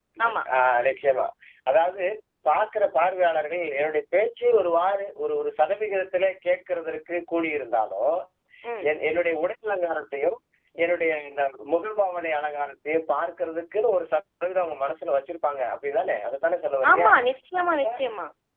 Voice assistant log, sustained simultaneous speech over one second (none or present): none